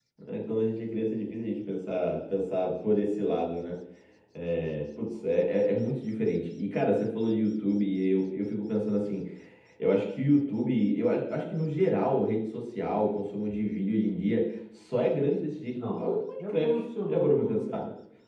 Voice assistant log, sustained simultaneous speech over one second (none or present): present